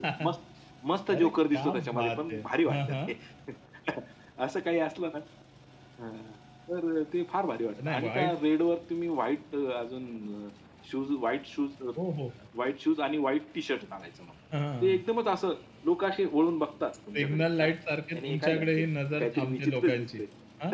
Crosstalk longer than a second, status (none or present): present